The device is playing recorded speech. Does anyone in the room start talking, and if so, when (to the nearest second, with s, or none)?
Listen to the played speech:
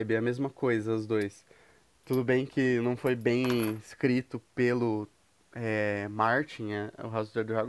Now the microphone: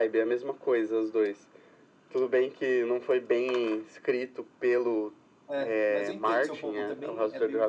6 s